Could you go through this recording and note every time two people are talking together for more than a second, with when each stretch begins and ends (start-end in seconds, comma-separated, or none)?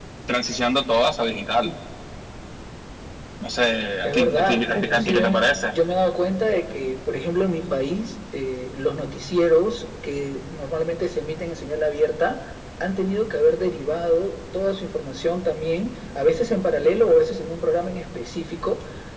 4.0-5.5